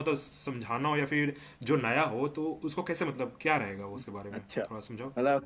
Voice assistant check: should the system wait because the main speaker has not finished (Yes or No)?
No